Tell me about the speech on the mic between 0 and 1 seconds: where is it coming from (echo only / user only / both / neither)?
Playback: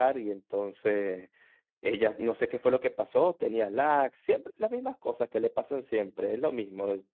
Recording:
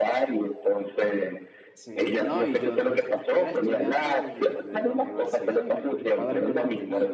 echo only